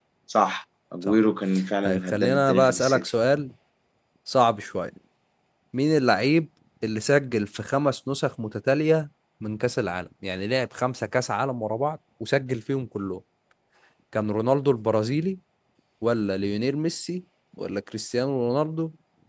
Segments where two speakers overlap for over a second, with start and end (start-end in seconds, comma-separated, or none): 1.9-3.1